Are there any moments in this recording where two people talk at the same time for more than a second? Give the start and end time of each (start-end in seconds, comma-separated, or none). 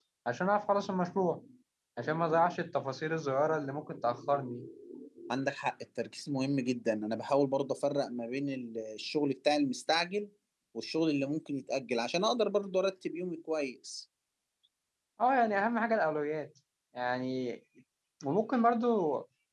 none